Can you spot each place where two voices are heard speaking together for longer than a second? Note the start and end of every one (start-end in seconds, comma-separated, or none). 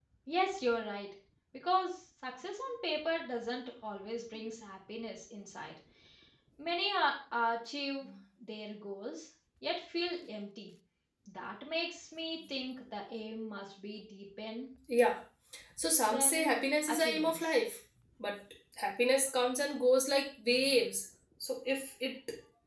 16.1-17.5